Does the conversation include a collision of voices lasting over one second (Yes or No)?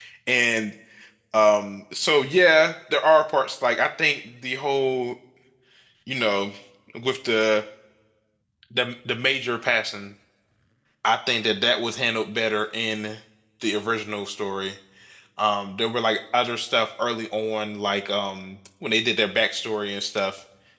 No